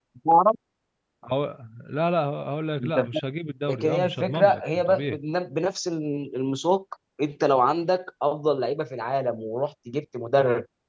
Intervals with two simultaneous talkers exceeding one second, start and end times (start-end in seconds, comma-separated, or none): 3.7-5.2